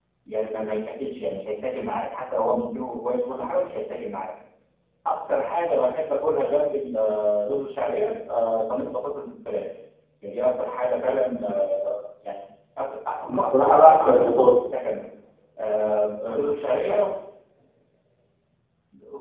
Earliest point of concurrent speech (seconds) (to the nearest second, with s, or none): 13 s